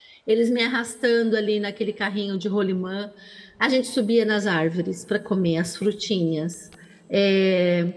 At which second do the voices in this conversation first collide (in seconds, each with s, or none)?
none